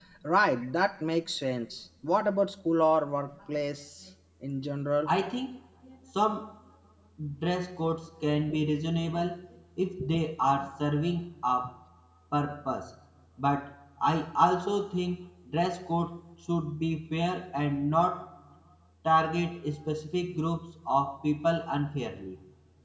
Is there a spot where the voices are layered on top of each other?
No

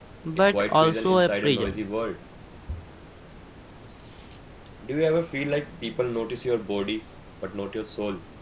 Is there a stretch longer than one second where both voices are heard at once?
Yes, from 0.5 s

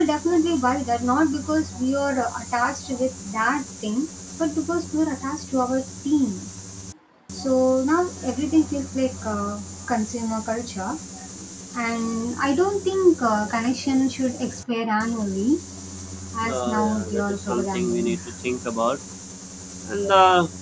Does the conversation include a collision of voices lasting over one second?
Yes, from 16.5 s

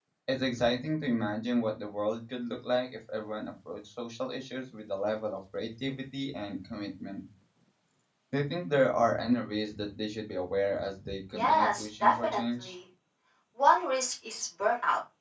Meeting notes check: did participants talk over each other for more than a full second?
Yes, from 11.4 s

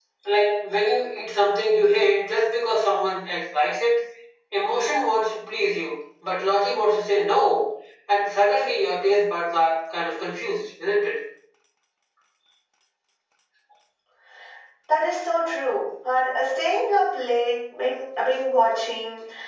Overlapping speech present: No

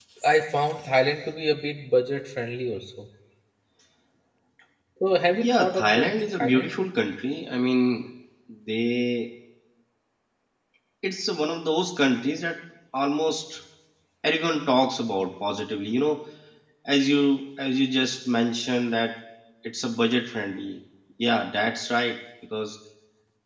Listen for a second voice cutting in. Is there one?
Yes, from 5.3 s

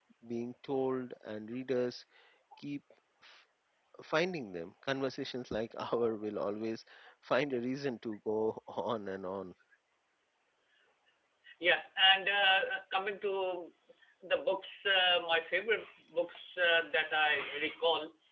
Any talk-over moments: No

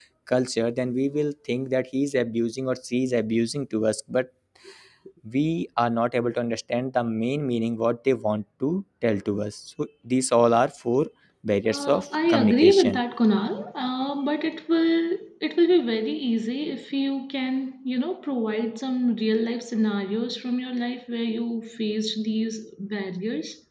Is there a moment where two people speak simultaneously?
Yes, from 11.7 s

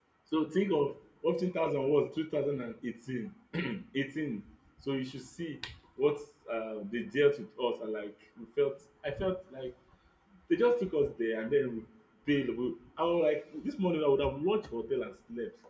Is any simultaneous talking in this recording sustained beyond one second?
No

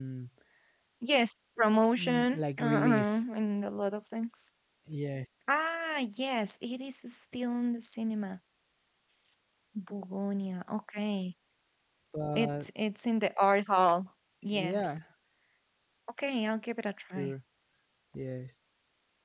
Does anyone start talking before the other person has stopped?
Yes, from 2.0 s

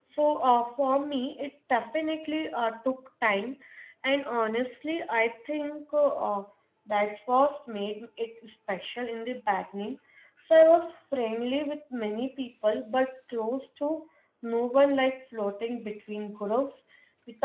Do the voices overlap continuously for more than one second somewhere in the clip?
No

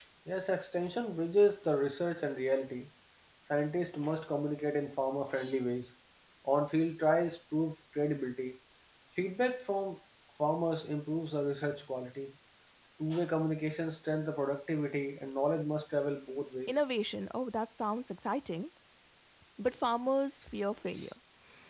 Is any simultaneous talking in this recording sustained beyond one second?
No

